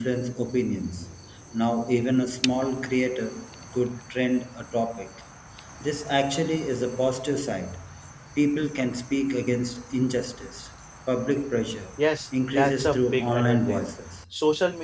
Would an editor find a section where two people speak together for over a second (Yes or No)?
Yes